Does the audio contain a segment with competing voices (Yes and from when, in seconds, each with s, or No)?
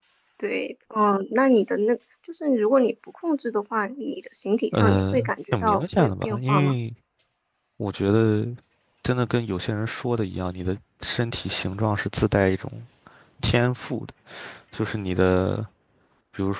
Yes, from 4.7 s